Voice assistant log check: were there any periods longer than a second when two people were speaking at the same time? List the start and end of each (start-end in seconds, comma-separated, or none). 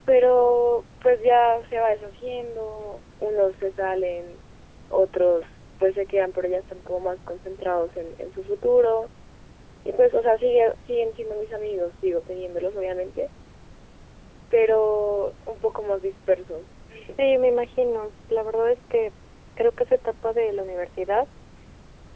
none